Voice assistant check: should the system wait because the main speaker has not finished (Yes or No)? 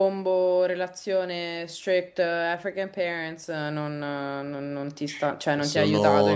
No